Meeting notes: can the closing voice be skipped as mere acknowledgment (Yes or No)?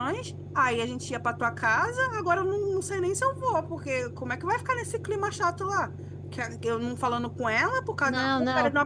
Yes